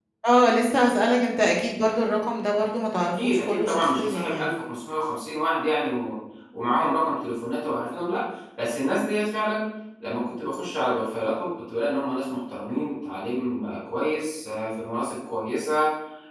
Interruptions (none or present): present